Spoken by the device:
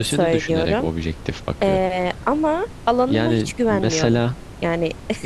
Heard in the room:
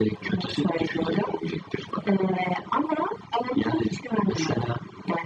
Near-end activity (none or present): none